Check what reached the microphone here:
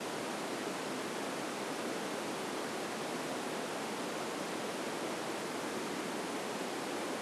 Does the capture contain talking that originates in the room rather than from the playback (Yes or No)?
No